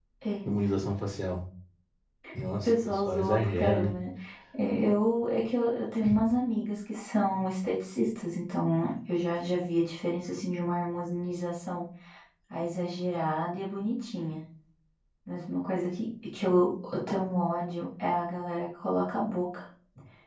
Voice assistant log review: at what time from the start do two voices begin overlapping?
2.4 s

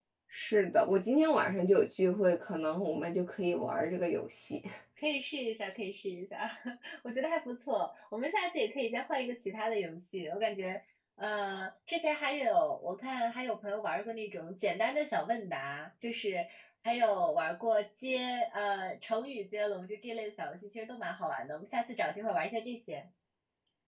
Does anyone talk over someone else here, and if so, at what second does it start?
none

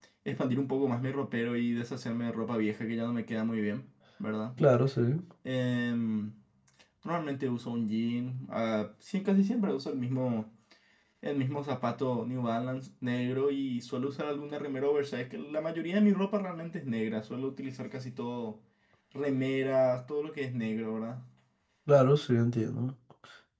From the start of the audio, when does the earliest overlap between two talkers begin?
none

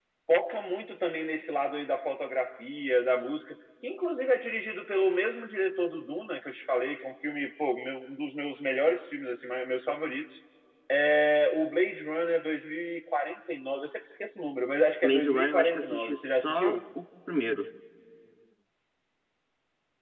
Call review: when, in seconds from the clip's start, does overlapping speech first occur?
15.0 s

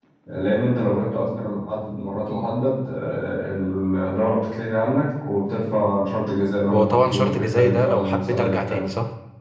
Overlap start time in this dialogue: 6.7 s

